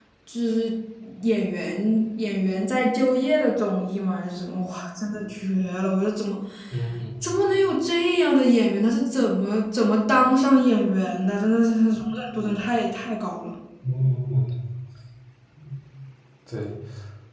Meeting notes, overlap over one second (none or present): none